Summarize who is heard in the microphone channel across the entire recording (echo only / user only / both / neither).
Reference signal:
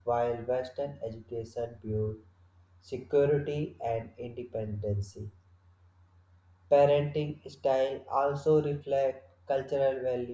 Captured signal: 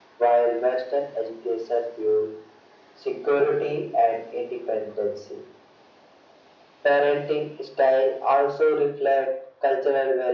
echo only